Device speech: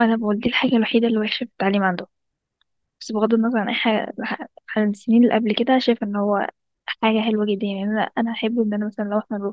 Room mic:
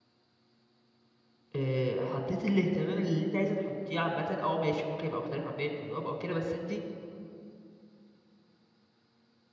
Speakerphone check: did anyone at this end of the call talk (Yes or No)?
Yes